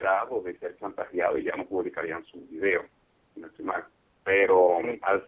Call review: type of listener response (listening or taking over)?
listening